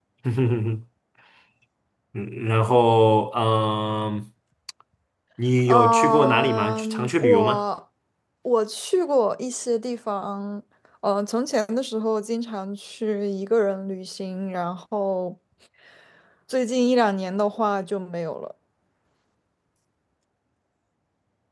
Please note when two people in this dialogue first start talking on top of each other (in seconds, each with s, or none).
5.7 s